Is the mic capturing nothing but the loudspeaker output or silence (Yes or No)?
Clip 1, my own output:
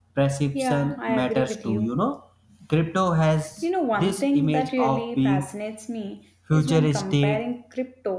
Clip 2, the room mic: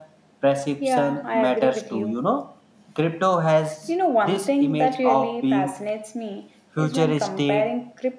Yes